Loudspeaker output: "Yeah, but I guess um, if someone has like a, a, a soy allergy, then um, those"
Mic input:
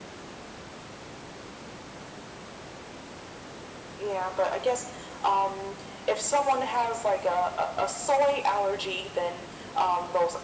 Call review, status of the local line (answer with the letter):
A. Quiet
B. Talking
A